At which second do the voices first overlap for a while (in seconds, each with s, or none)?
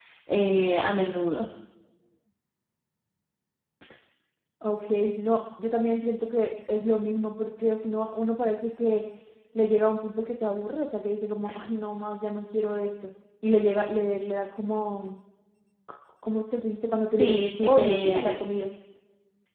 17.2 s